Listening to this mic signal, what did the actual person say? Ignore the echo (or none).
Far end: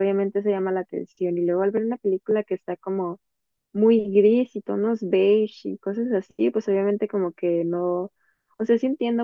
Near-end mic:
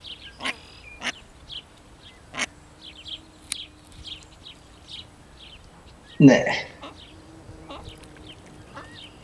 Neh.